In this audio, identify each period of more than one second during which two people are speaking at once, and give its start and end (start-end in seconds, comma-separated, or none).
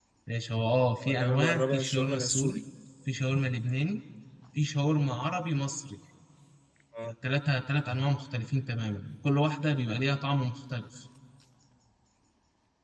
1.0-2.6